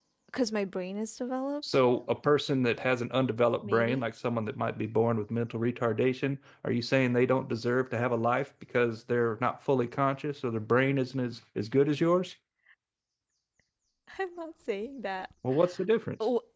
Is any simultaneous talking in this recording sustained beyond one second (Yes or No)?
No